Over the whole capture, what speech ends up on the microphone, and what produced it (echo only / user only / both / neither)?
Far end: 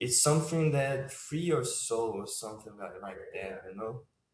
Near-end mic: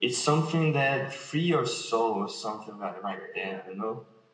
echo only